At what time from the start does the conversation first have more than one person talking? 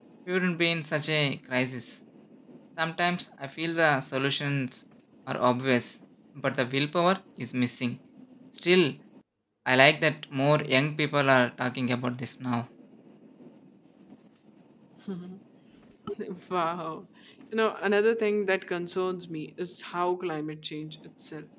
none

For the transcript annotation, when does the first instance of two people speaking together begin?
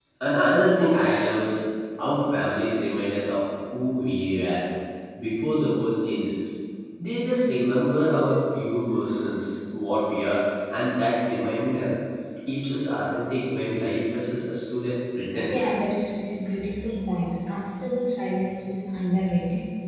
none

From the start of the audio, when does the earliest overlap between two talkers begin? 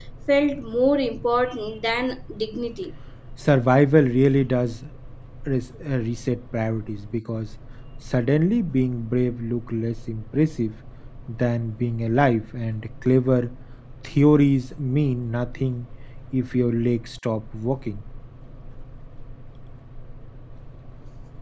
none

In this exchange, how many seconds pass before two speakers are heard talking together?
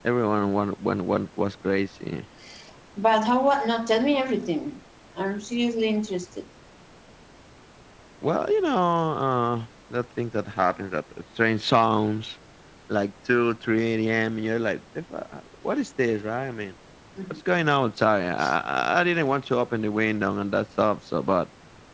none

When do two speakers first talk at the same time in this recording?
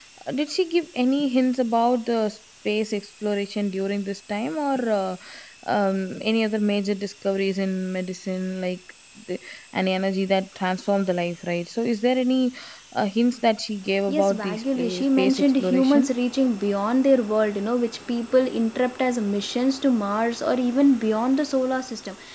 14.1 s

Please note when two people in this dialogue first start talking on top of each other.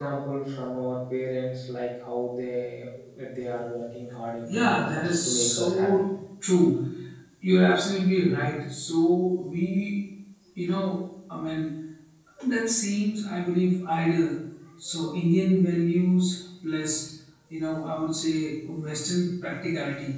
4.5 s

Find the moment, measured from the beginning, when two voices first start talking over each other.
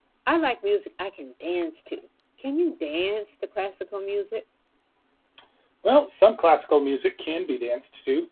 none

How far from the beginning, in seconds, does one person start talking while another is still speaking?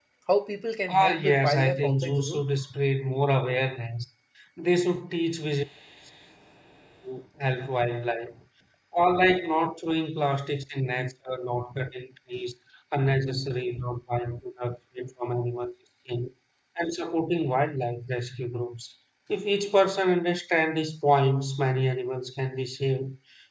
0.9 s

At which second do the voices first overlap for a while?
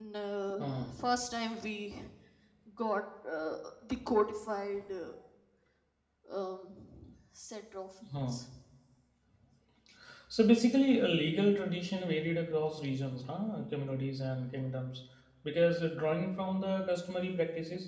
none

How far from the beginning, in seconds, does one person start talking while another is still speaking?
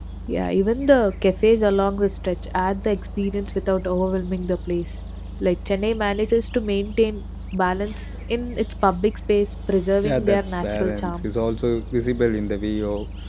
10.0 s

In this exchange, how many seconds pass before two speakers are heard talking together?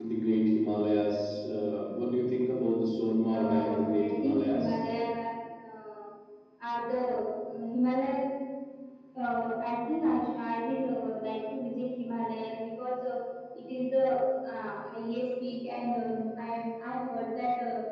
3.3 s

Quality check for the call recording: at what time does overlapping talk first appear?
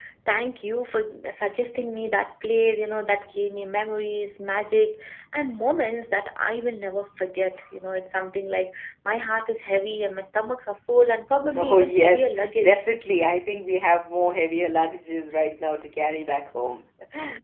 11.5 s

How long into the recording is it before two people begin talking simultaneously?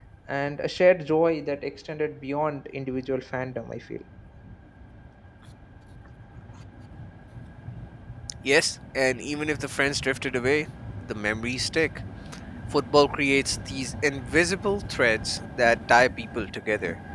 none

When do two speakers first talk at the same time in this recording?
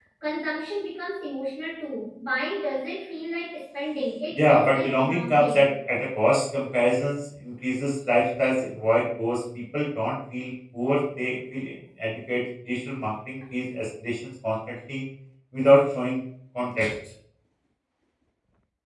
4.3 s

